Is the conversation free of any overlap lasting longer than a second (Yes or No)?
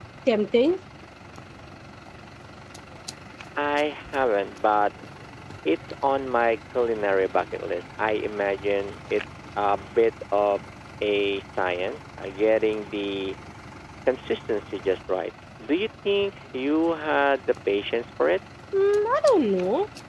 Yes